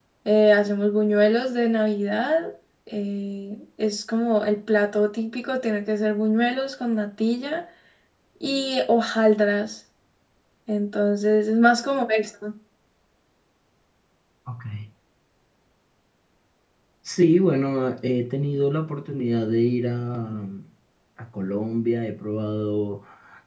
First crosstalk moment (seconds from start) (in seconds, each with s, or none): none